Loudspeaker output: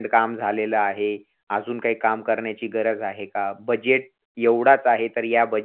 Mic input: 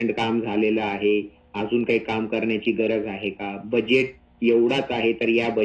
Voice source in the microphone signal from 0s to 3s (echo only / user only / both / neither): echo only